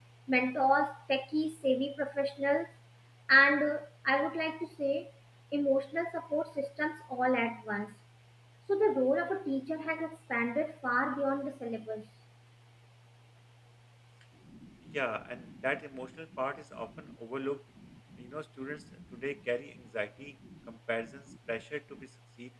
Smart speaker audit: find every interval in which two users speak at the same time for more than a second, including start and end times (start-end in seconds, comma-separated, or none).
none